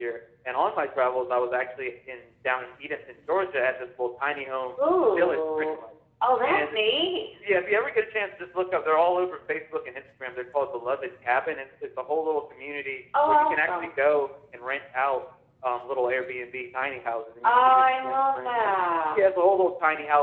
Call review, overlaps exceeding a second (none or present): present